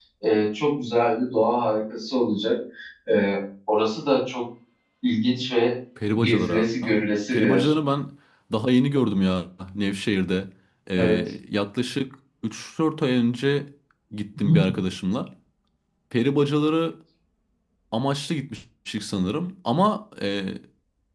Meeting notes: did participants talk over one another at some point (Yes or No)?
Yes